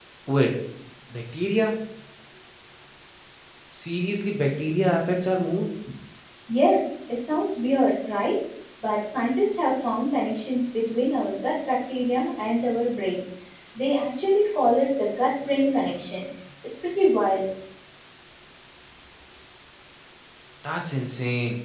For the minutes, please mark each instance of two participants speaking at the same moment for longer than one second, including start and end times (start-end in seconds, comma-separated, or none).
none